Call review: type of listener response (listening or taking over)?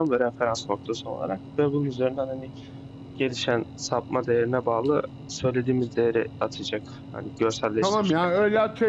taking over